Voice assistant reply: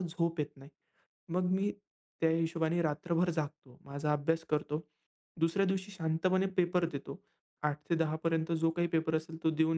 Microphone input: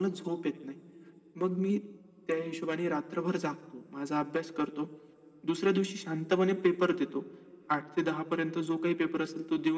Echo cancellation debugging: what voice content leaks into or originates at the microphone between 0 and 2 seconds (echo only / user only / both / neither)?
echo only